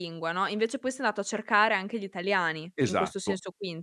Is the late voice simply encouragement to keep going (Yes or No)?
No